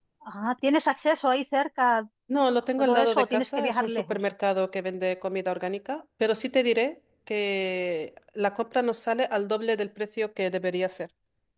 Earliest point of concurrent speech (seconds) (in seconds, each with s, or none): 2.8 s